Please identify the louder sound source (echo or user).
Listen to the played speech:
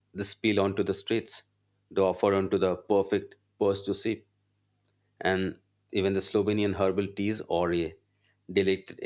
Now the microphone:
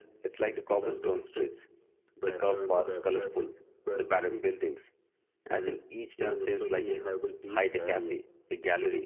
user